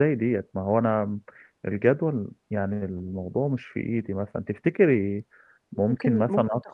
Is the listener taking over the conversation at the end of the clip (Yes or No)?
Yes